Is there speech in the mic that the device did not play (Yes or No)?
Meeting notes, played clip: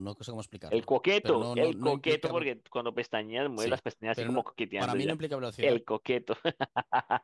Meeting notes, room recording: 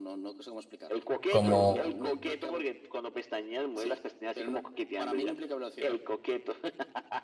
Yes